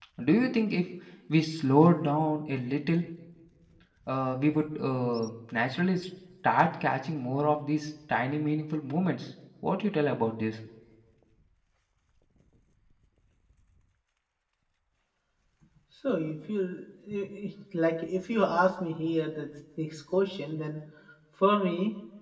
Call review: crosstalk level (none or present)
none